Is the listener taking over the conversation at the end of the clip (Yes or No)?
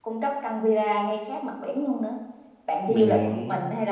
No